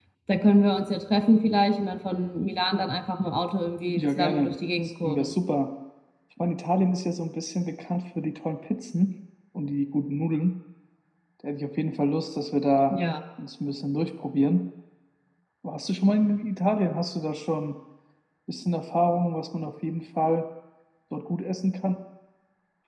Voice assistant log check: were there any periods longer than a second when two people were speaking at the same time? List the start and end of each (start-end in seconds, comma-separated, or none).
4.0-5.3